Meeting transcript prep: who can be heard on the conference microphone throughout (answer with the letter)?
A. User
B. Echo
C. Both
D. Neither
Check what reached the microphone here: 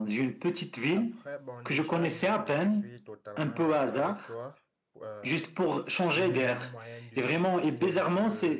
C